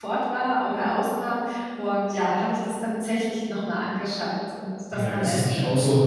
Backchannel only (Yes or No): No